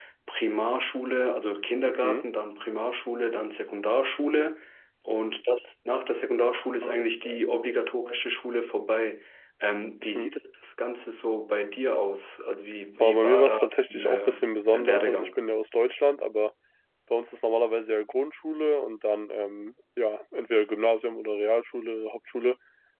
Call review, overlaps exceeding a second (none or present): present